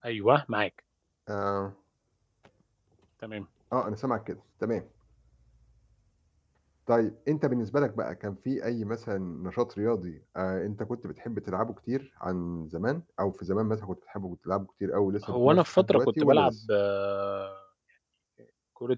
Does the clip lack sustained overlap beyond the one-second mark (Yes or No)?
No